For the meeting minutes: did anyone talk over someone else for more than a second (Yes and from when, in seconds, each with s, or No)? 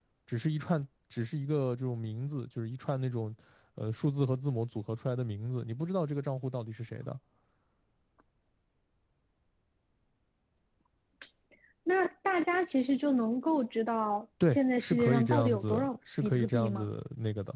Yes, from 14.4 s